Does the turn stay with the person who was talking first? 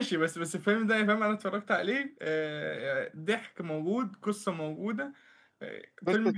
No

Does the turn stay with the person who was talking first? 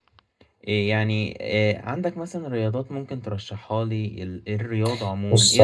No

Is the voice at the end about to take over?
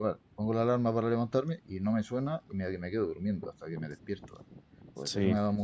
No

